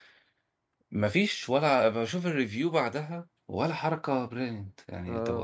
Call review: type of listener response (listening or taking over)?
taking over